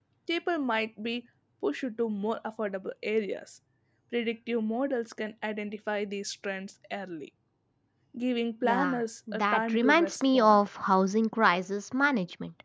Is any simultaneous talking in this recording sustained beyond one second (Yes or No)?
Yes